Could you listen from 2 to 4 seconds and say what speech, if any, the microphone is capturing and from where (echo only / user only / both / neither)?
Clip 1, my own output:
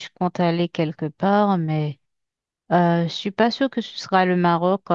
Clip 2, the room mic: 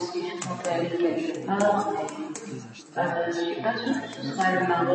both